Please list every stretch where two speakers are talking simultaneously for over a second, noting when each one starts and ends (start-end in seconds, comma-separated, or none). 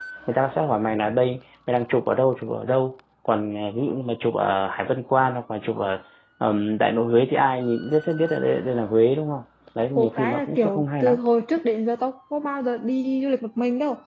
9.9-11.2